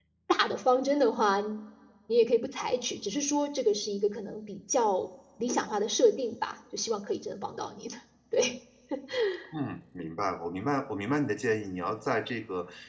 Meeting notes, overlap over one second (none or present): none